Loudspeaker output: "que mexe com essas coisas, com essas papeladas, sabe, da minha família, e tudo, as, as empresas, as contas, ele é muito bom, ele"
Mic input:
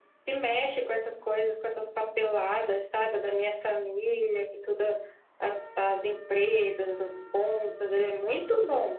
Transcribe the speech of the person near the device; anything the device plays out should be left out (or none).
none